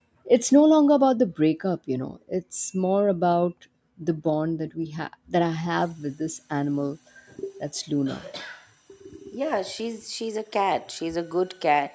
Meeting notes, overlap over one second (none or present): none